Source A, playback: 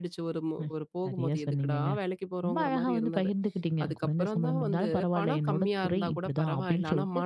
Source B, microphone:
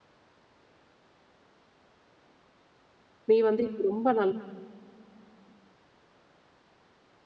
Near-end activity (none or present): present